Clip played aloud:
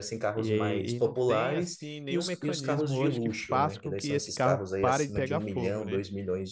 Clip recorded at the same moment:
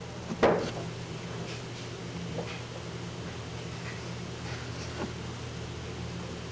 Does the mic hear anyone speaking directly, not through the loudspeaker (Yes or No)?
No